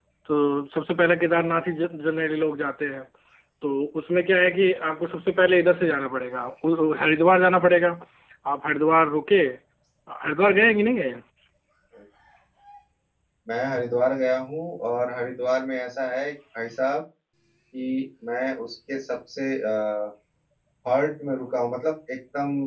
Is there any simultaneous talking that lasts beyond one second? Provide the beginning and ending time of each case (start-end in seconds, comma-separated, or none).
none